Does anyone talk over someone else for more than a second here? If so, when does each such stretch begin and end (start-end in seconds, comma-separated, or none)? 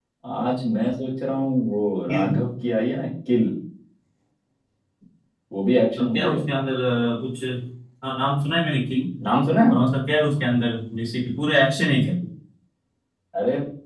none